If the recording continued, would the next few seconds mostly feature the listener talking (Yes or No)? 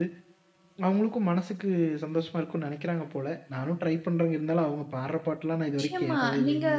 Yes